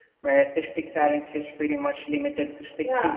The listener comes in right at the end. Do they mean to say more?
Yes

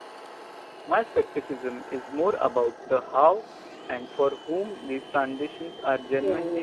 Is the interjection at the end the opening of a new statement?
Yes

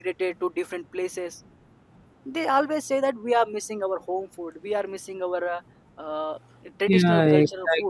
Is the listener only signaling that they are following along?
No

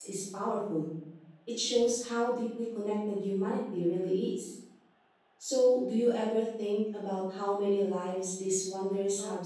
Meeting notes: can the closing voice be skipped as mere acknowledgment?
No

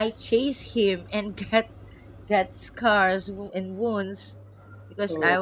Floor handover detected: No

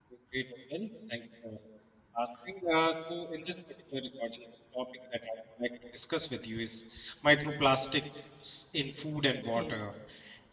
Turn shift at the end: No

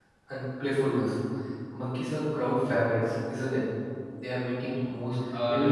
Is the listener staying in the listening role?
Yes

